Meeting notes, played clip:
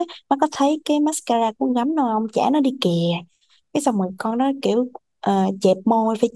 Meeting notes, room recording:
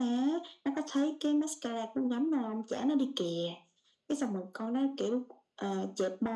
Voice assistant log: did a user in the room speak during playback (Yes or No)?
No